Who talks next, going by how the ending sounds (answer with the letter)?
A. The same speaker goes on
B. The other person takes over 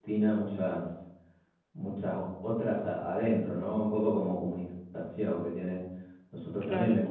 A